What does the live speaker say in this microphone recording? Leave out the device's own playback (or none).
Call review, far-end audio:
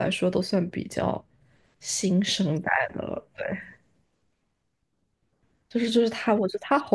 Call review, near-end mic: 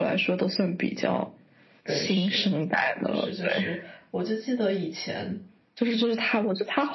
对，是，就是就是，我就记得以前，